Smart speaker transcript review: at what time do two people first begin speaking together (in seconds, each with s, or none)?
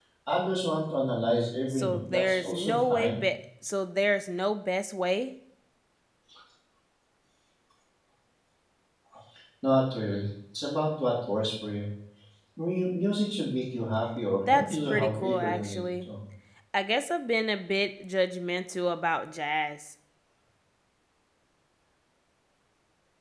1.7 s